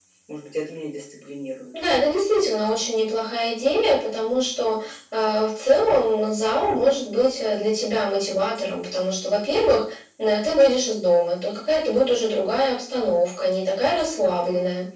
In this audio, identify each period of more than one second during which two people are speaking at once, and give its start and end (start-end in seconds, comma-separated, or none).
none